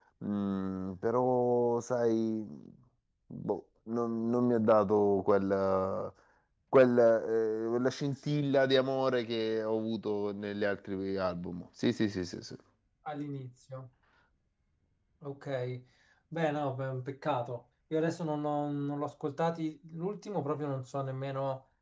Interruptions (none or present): none